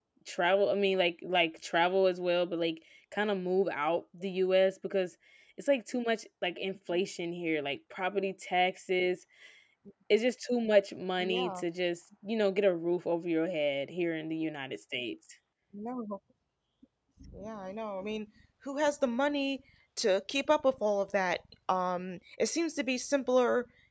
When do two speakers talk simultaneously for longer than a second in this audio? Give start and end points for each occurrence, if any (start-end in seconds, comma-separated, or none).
none